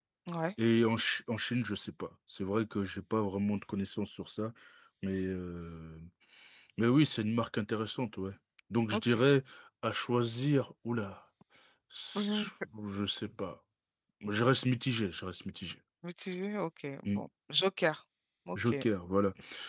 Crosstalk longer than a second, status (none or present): none